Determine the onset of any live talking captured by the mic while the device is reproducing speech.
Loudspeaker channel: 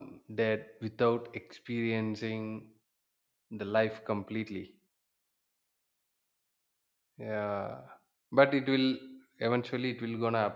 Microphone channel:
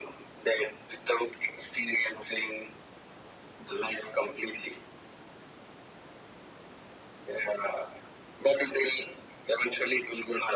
none

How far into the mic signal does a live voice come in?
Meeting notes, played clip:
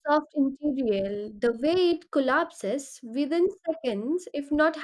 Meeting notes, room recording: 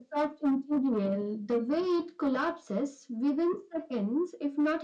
none

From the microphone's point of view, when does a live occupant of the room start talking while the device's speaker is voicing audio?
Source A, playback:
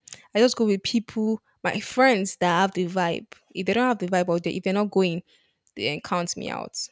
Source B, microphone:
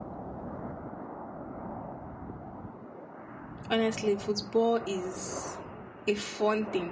4 s

